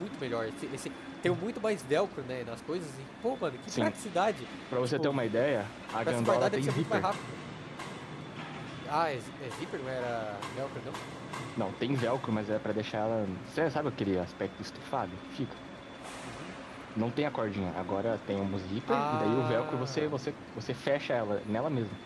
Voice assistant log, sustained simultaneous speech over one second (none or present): present